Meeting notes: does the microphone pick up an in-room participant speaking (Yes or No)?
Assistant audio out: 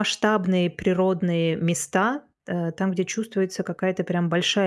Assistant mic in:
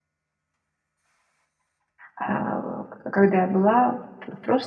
Yes